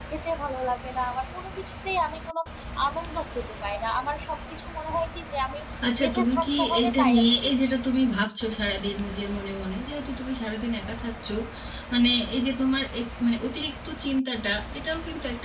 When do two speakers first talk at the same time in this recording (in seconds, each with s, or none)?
6.0 s